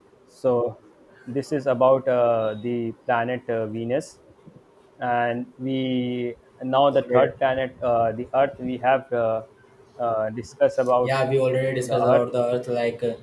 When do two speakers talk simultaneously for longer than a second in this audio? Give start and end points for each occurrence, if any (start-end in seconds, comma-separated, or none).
none